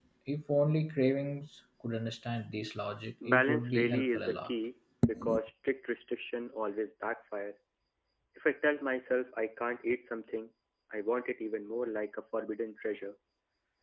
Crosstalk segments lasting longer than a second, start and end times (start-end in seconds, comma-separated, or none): 3.2-4.5